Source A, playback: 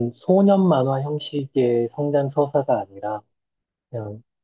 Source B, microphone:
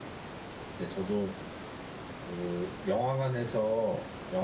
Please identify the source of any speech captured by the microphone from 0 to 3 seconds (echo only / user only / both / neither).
user only